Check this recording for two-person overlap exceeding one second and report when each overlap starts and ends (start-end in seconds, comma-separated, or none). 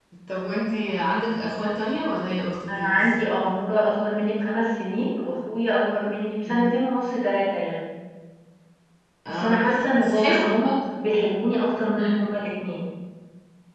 9.3-10.8